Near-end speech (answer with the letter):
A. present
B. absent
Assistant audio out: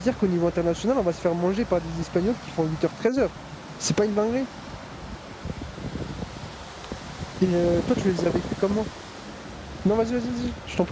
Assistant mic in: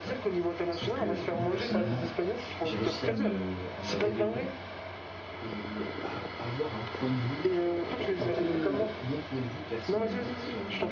A